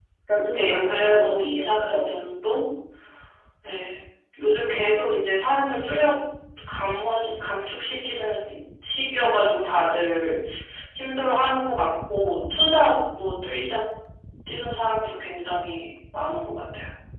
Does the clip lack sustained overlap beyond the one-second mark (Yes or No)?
No